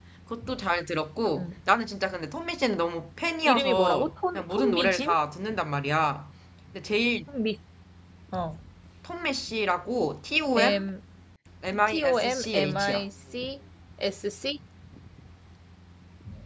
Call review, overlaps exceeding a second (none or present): present